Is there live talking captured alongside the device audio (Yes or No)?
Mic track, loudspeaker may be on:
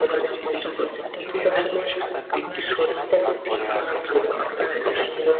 Yes